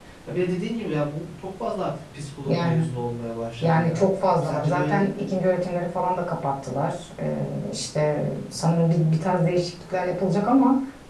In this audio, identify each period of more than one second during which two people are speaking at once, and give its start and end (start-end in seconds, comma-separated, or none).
3.6-5.3